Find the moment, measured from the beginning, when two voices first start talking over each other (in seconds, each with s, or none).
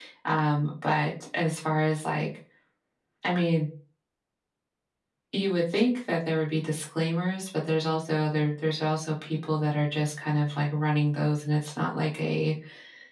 none